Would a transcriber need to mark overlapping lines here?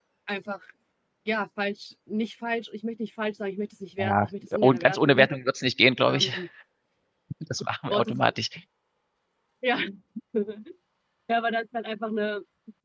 Yes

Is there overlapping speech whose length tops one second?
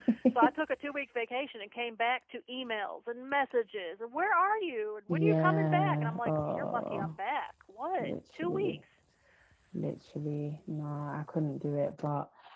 Yes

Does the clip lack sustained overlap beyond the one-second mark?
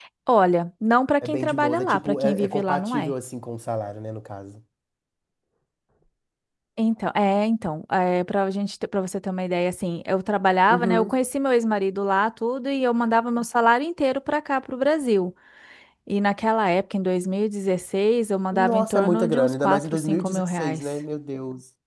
No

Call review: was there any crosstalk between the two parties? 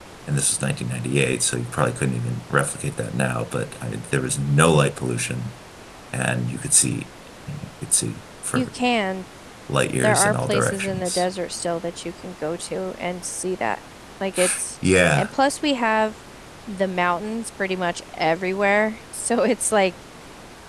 Yes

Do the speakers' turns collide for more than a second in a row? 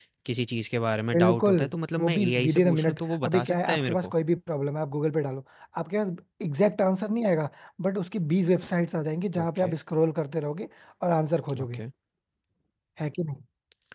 Yes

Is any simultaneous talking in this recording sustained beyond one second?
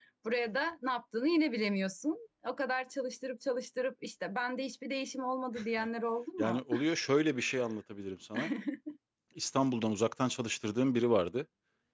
No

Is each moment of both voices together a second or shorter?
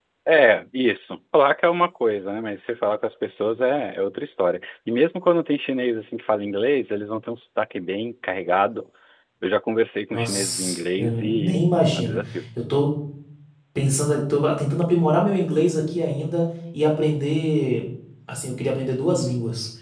No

